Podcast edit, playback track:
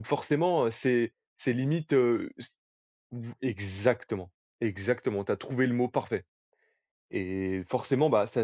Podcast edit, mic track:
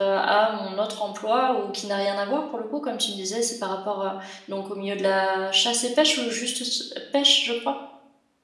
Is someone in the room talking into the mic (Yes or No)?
Yes